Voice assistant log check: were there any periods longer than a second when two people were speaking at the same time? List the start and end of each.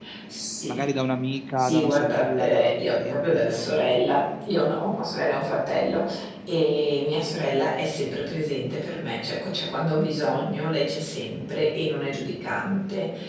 1.6-3.8

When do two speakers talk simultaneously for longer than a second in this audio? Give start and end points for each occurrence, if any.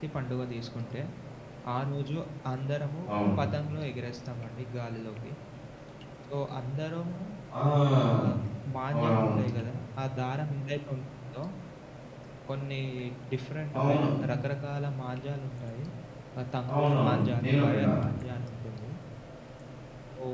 16.7-18.0

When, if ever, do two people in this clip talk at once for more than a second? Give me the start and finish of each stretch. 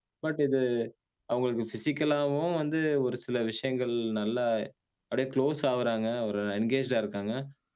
none

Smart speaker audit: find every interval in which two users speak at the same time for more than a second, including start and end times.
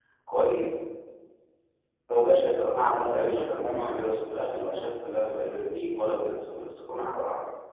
2.9-4.1

